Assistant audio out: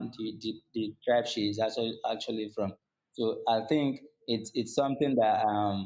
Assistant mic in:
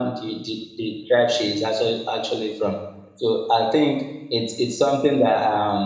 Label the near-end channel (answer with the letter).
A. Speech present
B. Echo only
B